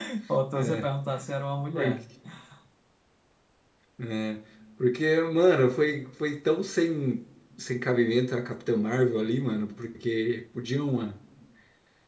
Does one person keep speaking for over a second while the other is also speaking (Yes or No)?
No